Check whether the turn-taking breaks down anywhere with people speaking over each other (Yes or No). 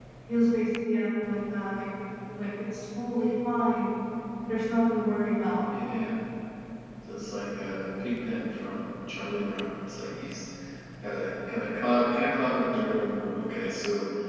No